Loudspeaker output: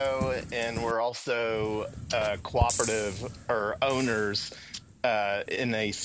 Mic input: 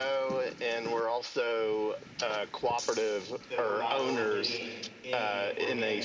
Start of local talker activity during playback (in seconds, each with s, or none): 3.5 s